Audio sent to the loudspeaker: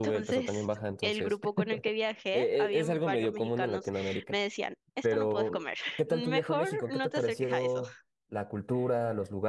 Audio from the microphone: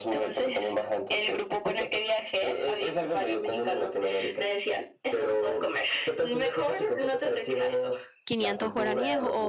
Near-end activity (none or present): present